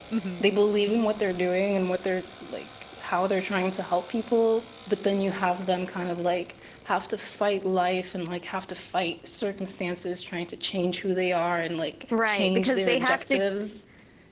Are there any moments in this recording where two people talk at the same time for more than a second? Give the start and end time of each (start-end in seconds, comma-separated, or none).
12.1-13.4